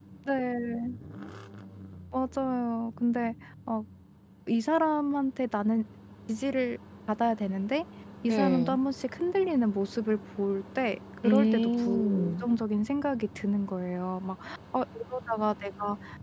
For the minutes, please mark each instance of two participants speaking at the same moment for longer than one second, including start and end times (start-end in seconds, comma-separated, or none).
11.2-12.4